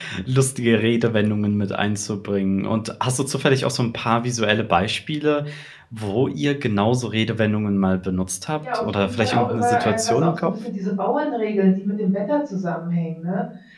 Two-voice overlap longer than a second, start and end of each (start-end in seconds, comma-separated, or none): 8.7-10.5